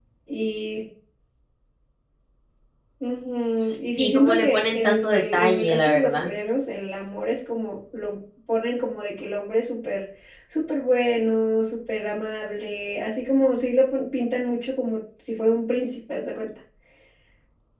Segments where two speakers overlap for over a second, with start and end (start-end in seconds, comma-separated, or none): 3.9-6.3